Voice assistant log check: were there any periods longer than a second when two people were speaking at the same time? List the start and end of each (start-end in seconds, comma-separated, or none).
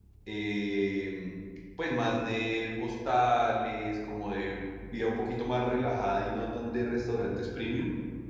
none